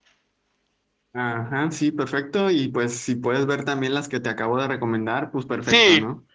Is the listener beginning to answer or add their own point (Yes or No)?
Yes